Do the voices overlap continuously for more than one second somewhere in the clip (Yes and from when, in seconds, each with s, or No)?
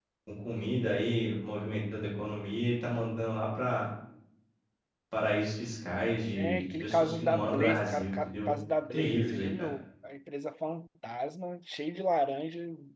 Yes, from 6.3 s